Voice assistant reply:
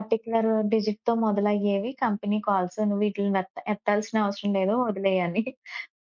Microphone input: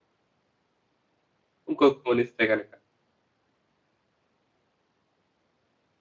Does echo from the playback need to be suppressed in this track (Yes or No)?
No